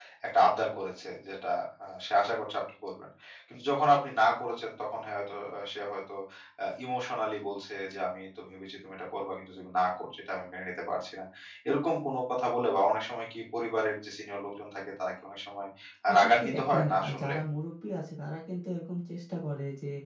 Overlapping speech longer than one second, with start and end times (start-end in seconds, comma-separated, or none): 16.1-17.4